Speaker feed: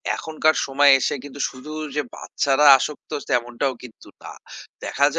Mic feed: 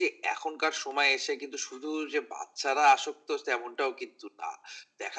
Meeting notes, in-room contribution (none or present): none